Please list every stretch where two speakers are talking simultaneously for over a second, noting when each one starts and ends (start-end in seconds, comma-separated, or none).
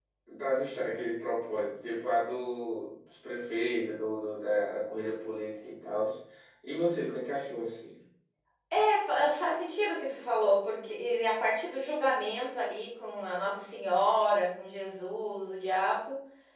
none